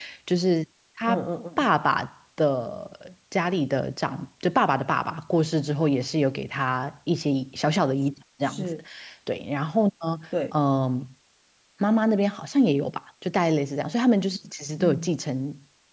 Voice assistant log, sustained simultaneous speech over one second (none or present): none